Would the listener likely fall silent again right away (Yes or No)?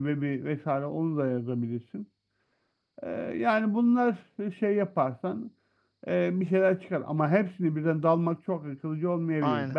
Yes